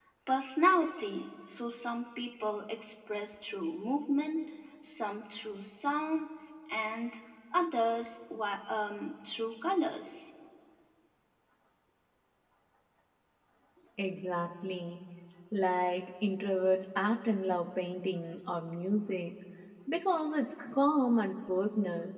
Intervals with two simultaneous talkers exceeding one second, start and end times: none

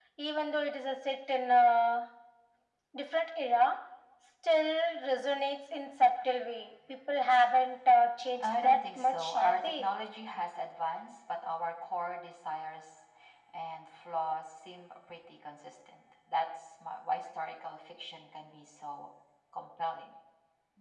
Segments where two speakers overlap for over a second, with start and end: 8.4-9.9

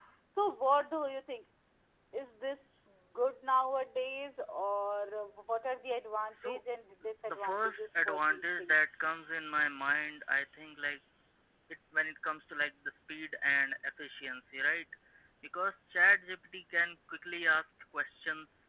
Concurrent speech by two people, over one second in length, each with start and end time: 7.3-8.8

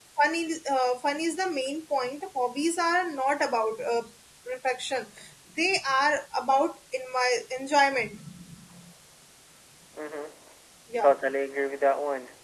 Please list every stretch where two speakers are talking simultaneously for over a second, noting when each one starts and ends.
none

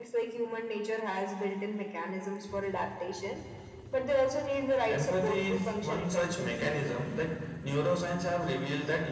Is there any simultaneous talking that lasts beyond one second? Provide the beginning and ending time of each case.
4.9-6.7

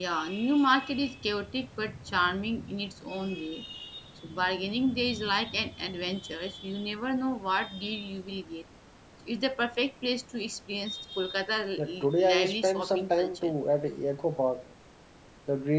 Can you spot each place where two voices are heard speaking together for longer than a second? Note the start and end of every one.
11.8-13.5

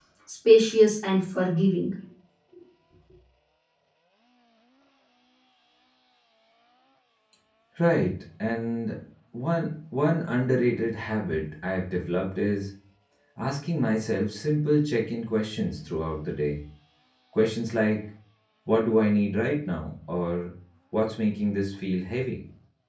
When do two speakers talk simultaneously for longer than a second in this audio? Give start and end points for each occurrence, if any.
none

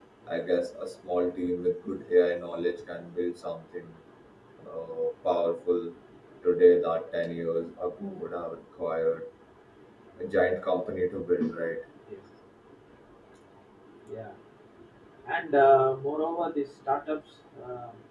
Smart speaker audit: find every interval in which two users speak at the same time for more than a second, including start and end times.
none

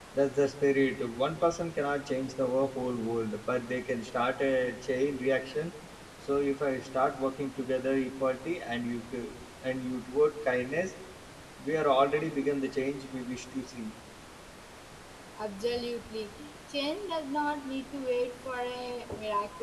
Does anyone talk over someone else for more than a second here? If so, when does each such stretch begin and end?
none

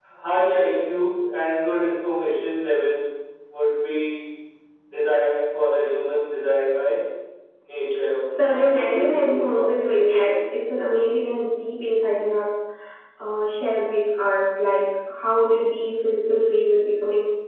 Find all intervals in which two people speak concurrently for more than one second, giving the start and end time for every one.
8.3-9.7

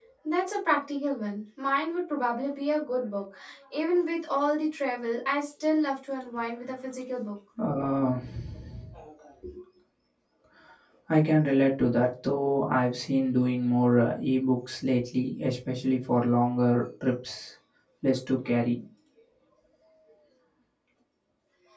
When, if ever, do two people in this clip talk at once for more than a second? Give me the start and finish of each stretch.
none

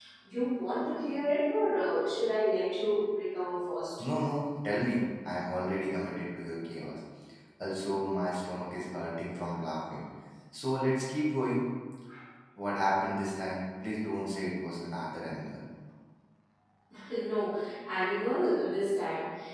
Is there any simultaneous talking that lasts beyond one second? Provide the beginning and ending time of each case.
none

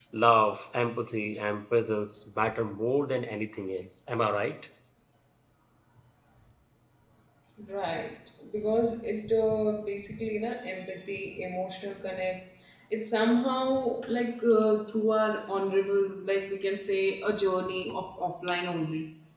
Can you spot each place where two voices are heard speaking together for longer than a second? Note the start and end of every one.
none

